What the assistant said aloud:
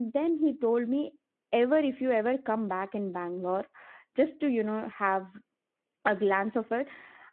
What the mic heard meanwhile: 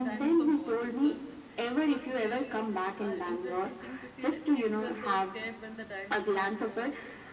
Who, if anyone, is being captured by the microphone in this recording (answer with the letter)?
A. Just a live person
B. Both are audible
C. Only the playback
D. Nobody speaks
B